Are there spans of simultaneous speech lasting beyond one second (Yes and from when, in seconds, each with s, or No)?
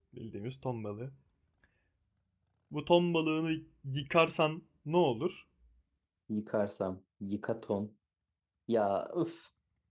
No